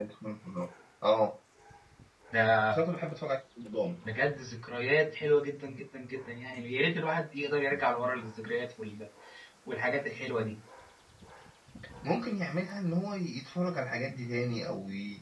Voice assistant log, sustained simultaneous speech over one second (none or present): none